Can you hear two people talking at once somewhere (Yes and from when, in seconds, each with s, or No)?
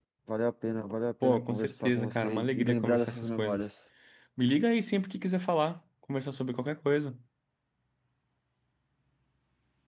Yes, from 1.2 s